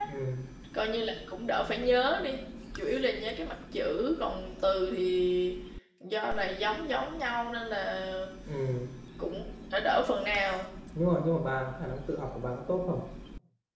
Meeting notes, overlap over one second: none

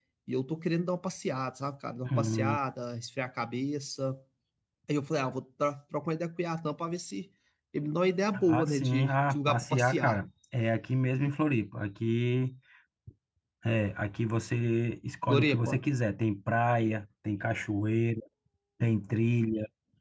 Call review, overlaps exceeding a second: present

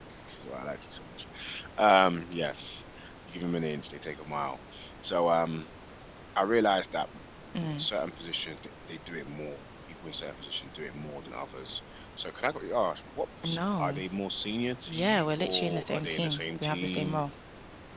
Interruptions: present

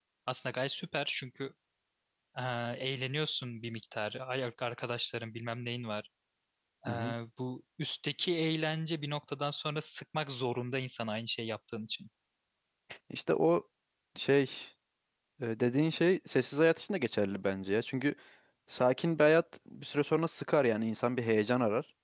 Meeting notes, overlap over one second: none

